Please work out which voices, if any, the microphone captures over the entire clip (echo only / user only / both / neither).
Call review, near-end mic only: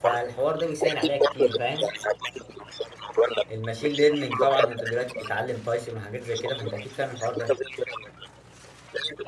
both